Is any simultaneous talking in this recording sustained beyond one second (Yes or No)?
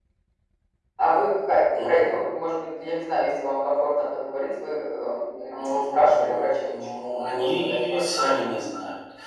Yes